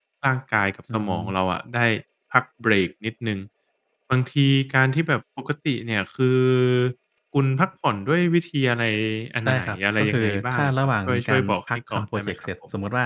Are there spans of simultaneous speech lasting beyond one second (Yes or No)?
Yes